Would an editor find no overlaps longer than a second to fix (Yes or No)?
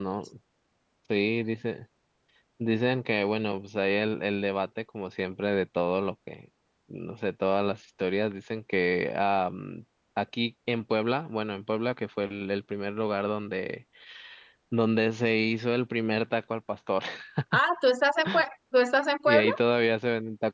Yes